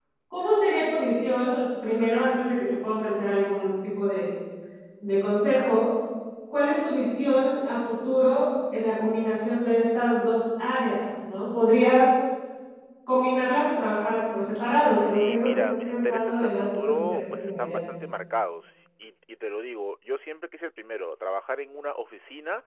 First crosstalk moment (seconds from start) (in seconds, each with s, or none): 14.9 s